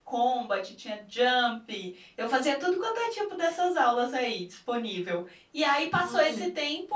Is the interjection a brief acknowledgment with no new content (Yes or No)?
Yes